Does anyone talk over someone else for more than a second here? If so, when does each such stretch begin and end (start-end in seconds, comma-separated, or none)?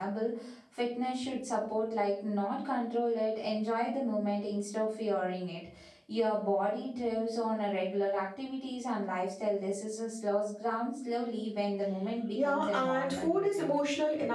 12.3-13.8